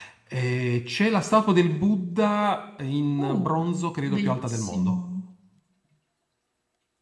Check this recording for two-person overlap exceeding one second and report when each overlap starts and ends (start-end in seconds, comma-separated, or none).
3.2-5.0